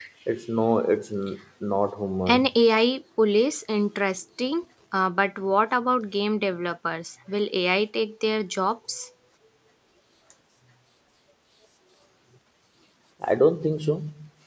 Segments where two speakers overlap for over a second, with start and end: none

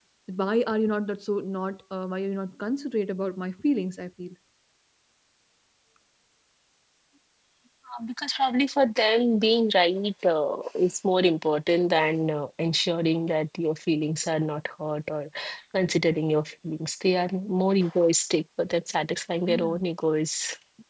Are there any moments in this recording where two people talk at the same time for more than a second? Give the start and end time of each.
none

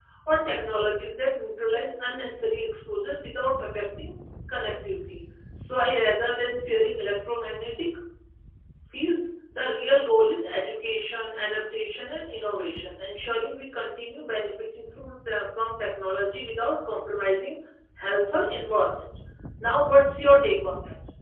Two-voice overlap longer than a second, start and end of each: none

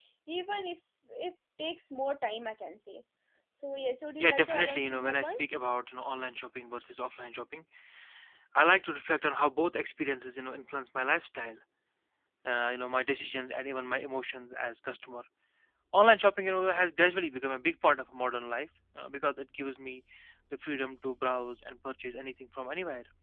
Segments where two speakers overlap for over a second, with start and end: 4.2-5.6

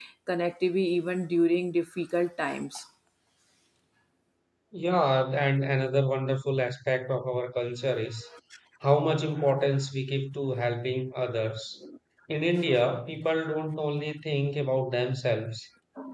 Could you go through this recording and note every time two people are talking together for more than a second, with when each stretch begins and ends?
none

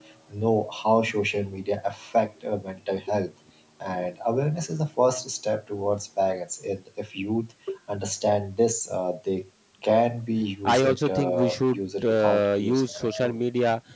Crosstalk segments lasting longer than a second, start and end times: 10.7-13.4

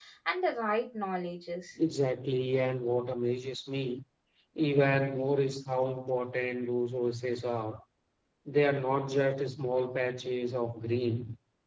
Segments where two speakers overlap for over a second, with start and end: none

